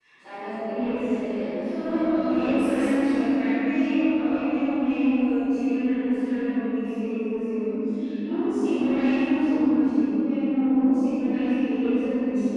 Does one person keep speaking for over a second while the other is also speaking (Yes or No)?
Yes